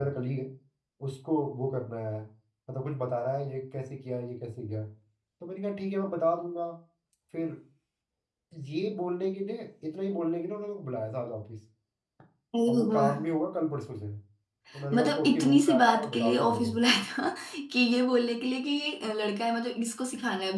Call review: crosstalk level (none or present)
present